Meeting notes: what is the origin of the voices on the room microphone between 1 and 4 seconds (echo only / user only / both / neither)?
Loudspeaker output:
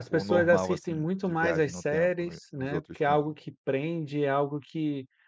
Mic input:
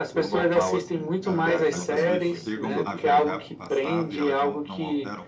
both